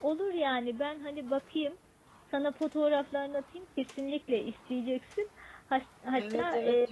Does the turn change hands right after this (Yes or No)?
Yes